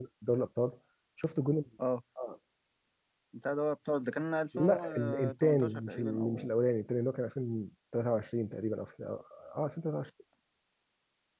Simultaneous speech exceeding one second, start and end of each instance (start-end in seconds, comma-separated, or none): 4.6-6.5